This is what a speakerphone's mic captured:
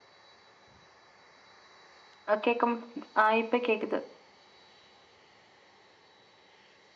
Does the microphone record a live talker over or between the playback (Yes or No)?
Yes